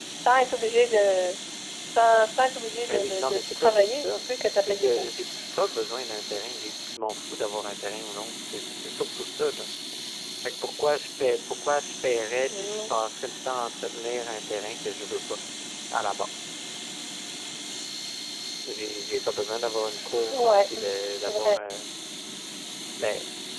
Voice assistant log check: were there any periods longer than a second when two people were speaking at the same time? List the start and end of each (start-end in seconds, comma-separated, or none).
2.8-5.1, 20.3-21.8